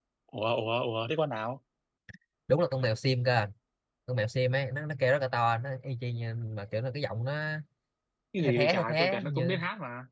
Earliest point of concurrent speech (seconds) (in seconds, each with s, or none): 8.4 s